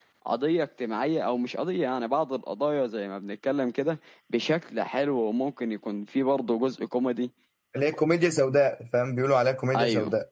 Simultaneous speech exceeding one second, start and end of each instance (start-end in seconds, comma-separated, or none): none